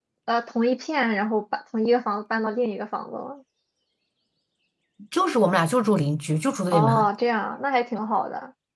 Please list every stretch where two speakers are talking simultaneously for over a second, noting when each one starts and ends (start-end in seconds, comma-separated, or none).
none